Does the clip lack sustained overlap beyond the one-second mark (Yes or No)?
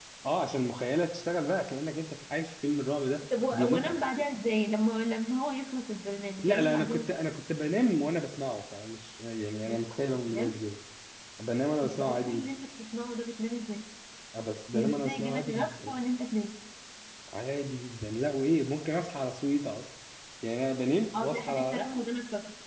No